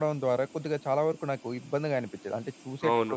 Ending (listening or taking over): taking over